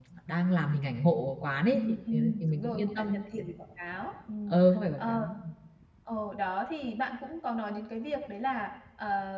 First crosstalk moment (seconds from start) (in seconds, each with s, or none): 1.7 s